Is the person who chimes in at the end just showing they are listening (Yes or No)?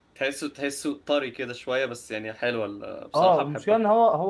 No